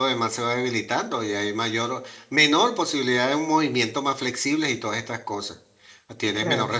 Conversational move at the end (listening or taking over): listening